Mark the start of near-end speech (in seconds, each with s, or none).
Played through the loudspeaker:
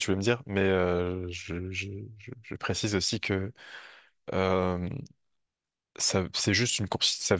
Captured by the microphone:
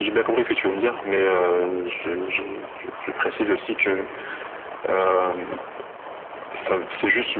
none